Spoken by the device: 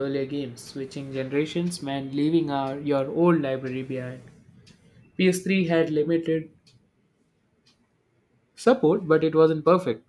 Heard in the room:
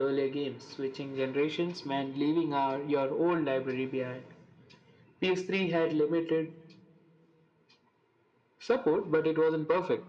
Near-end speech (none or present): none